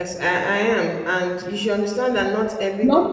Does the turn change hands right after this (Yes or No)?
No